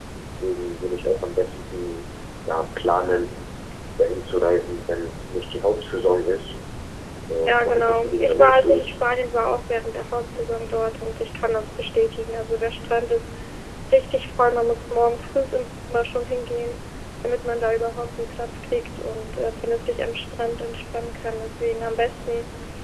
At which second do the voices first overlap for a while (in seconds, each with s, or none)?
7.5 s